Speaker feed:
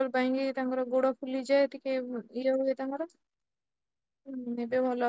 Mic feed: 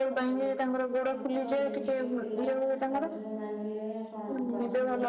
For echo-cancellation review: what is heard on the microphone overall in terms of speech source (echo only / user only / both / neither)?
both